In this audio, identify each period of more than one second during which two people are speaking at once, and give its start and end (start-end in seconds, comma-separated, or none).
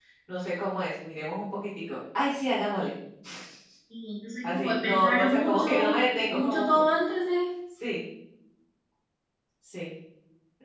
4.4-6.7